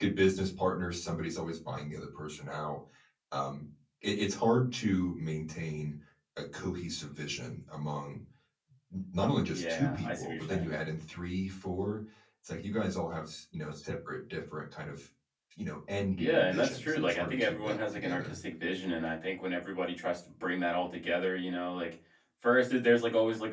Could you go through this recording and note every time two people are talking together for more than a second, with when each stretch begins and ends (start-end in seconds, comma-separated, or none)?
9.4-10.7, 16.2-18.4